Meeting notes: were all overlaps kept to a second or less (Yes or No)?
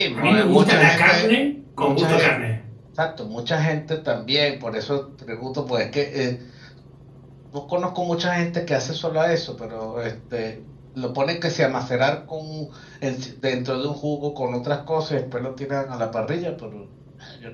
No